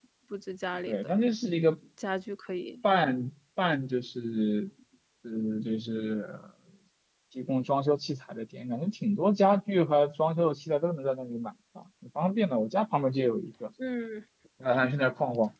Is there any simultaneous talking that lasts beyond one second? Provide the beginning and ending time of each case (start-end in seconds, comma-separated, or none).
none